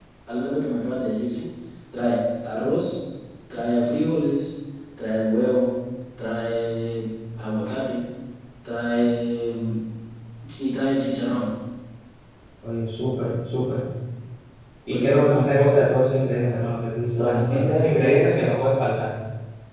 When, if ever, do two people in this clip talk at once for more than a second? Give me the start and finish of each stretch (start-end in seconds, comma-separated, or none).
17.1-18.4